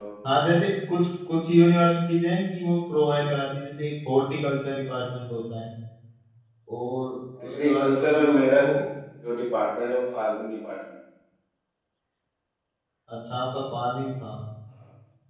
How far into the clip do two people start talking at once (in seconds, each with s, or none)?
7.4 s